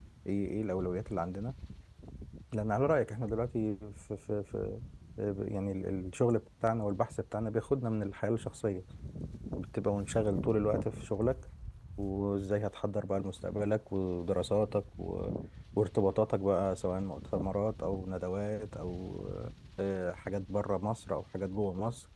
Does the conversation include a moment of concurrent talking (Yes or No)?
No